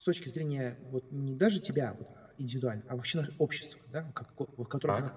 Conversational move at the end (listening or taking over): listening